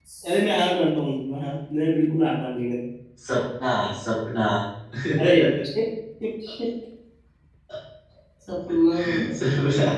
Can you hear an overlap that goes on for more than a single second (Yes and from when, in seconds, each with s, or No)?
No